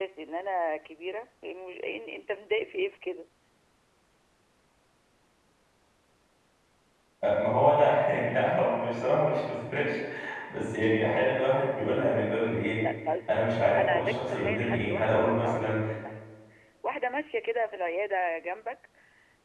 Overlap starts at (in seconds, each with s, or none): 13.8 s